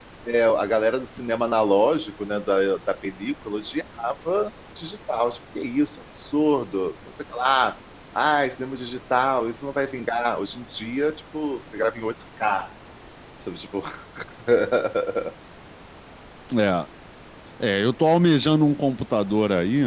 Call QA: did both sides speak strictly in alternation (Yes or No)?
Yes